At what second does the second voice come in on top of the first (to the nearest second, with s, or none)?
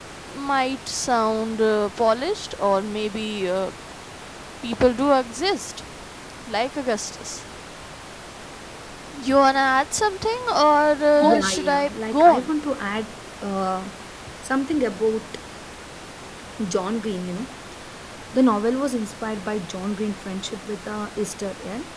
11 s